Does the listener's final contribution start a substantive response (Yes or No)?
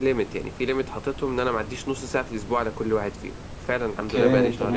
Yes